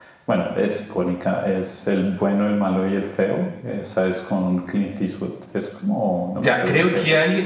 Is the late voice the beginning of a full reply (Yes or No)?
Yes